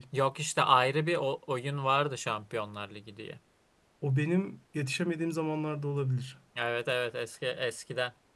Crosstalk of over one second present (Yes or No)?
No